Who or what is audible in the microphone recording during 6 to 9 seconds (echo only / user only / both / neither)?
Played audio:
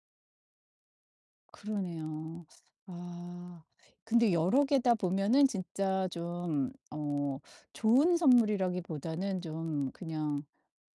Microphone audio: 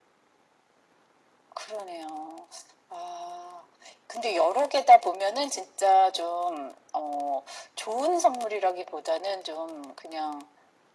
echo only